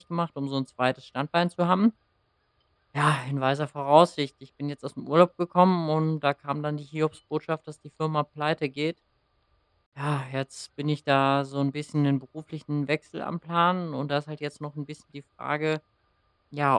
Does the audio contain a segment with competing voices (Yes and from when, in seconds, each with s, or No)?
No